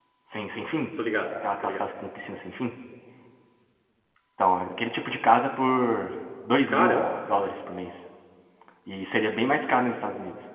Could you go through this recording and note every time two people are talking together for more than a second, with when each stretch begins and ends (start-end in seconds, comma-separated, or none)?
none